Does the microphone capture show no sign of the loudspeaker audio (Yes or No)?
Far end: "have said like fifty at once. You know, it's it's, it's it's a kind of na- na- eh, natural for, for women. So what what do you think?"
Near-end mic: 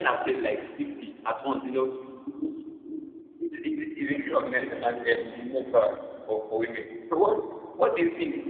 No